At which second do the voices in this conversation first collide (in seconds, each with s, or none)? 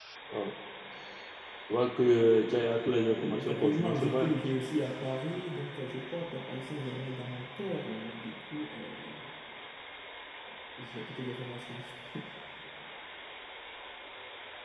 3.2 s